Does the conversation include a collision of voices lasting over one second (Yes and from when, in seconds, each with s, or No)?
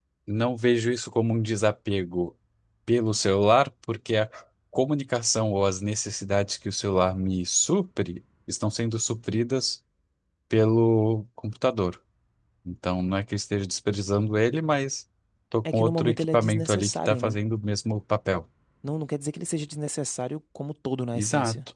Yes, from 15.7 s